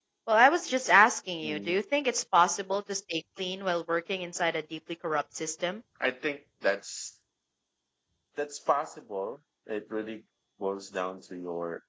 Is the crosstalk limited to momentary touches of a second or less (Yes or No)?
Yes